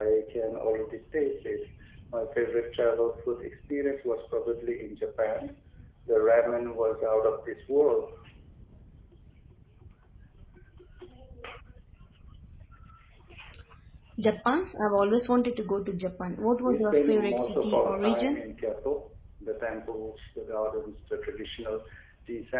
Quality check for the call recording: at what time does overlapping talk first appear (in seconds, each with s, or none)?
16.6 s